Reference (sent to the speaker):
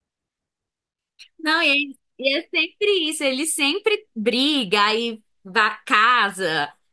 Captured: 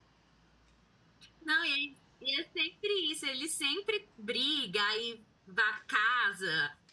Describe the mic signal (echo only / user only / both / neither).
echo only